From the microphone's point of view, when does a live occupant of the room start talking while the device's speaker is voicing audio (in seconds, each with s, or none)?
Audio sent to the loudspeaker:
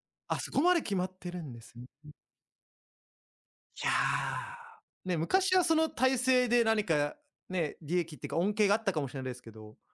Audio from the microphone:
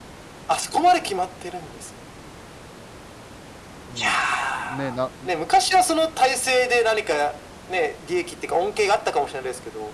3.9 s